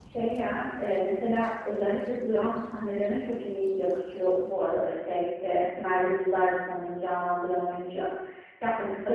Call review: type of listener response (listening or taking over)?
listening